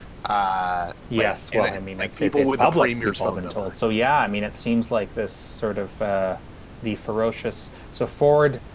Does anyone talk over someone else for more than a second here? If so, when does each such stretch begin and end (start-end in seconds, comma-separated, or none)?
1.2-3.7